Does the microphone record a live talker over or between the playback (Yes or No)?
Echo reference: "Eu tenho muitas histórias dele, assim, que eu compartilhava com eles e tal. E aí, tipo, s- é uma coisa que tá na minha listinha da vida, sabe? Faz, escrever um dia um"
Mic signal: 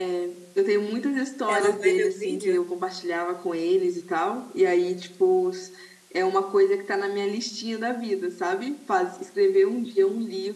Yes